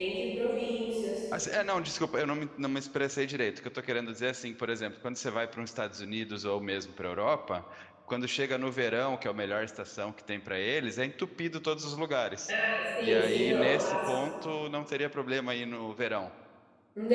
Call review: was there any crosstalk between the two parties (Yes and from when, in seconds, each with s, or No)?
Yes, from 13.0 s